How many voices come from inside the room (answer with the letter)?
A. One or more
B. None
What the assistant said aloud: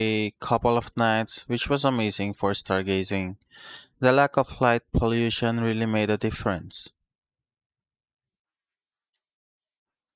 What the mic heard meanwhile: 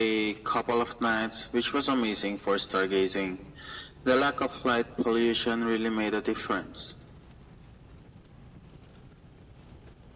B